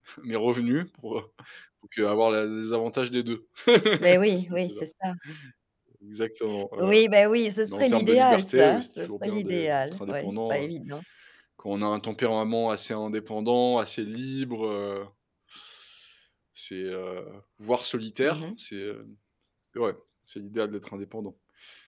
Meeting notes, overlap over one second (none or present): present